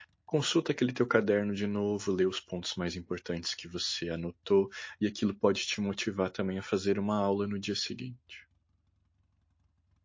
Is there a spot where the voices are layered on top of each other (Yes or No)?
No